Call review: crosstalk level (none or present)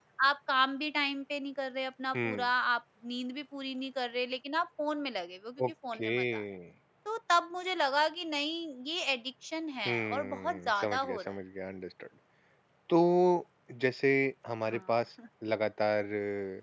present